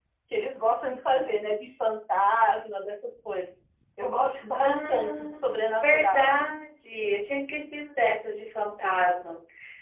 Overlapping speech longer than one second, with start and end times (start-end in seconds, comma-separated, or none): 4.5-6.3